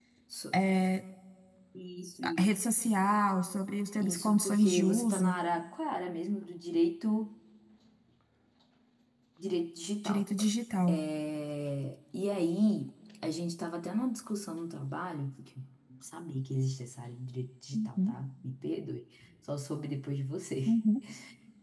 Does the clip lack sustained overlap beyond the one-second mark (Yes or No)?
No